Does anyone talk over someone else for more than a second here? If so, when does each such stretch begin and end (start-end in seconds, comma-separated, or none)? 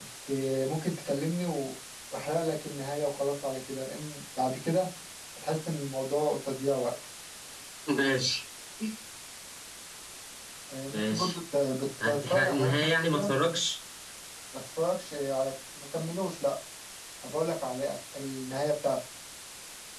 12.0-13.3